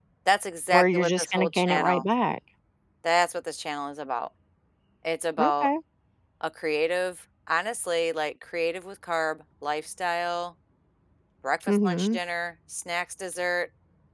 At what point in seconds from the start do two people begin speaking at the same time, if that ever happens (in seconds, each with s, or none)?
0.7 s